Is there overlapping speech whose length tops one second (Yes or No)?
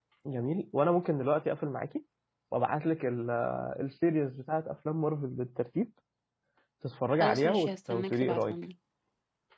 Yes